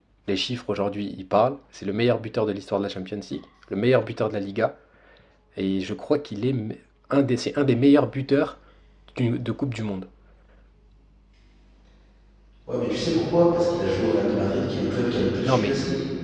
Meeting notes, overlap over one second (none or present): none